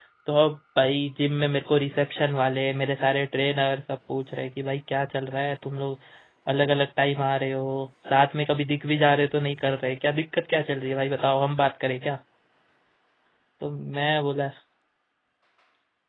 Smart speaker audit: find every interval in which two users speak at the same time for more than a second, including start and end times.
none

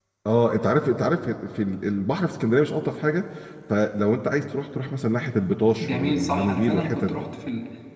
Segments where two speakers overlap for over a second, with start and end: 5.8-7.2

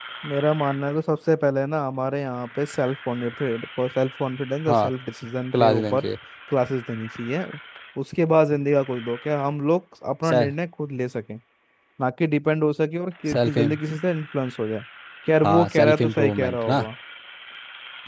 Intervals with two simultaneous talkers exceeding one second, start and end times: 15.4-16.8

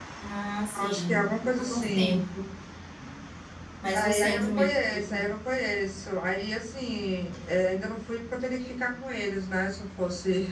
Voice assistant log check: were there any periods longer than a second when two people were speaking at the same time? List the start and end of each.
0.8-2.2, 3.9-5.3

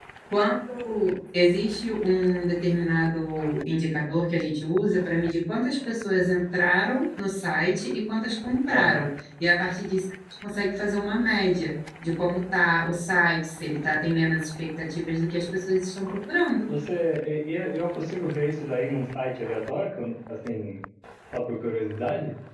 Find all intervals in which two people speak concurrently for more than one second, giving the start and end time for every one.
none

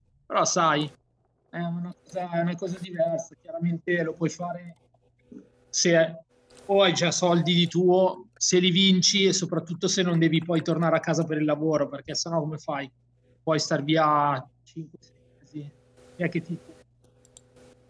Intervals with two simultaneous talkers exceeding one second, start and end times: none

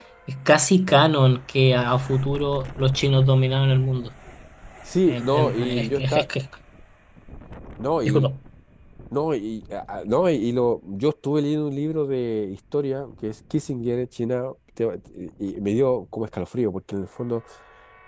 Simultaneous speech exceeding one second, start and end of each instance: 5.1-6.3

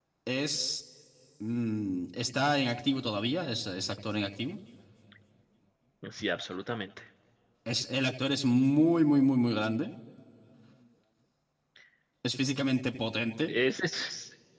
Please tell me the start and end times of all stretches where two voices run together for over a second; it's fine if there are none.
none

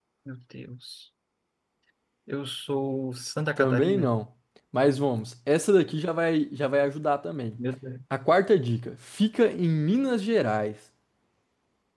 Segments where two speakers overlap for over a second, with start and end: none

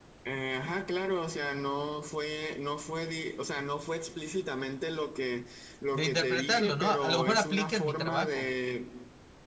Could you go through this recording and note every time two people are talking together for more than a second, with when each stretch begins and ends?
5.9-8.5

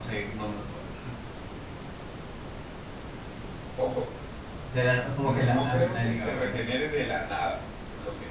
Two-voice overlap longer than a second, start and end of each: 5.2-6.7

